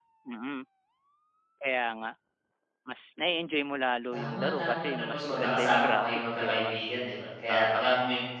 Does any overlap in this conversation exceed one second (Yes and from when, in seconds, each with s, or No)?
Yes, from 4.1 s